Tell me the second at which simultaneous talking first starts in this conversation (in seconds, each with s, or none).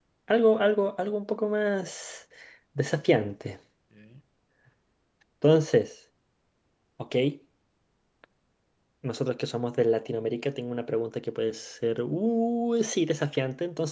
none